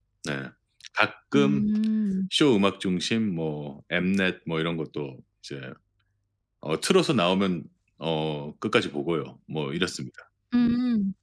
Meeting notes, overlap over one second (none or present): none